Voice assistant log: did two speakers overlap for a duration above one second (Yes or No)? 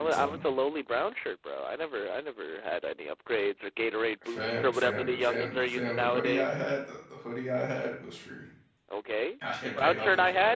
Yes